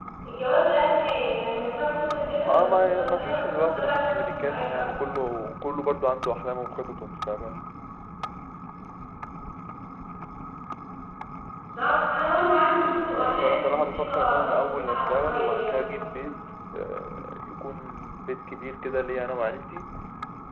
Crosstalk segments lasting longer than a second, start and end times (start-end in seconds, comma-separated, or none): 2.4-4.8, 12.8-15.8